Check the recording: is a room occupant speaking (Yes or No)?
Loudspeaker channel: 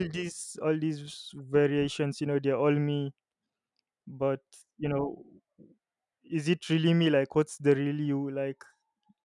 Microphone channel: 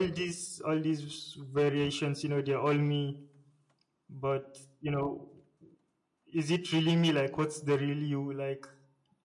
No